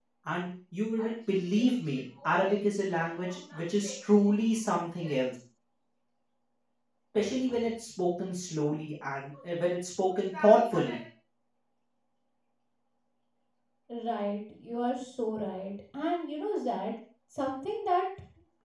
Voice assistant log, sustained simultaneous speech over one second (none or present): none